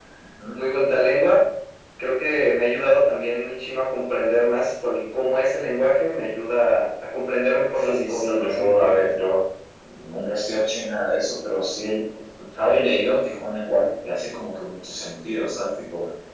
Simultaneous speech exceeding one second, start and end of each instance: 7.8-9.0

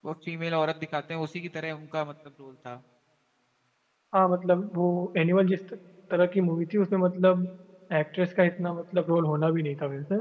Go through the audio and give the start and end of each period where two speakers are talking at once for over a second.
none

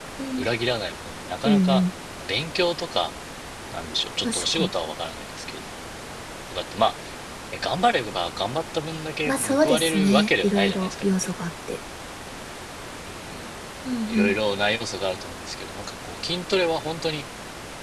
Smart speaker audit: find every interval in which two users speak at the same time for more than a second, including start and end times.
9.3-11.1

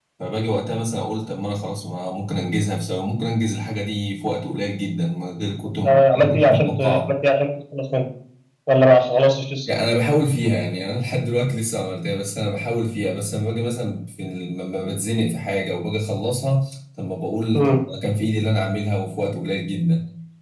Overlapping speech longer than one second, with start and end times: 5.7-7.1

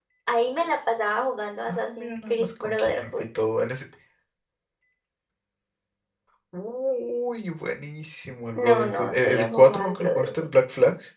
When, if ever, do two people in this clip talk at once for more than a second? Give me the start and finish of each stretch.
1.7-3.1, 8.6-10.3

